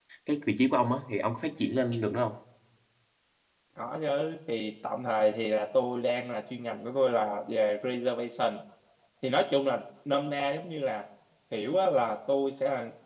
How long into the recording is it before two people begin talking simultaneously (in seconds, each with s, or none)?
none